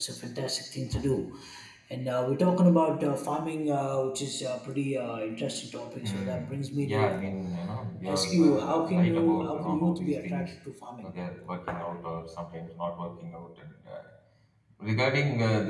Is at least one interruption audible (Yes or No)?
Yes